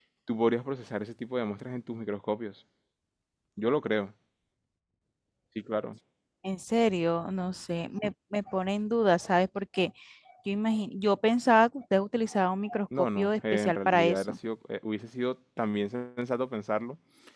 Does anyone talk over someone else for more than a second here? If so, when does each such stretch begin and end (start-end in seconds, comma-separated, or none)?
13.0-14.3